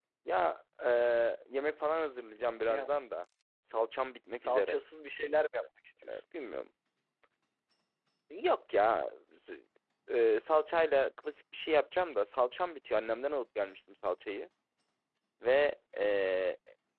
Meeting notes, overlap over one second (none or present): none